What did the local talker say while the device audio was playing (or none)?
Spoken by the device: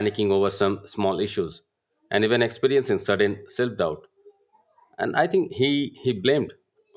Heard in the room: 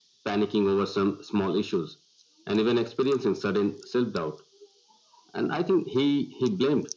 none